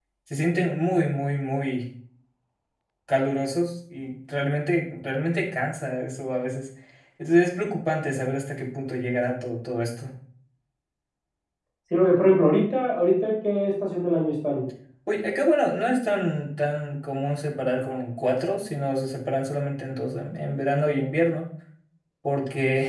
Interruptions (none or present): none